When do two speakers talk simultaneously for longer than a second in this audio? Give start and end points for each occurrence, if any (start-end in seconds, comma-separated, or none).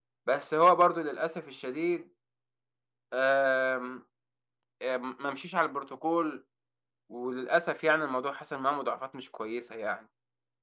none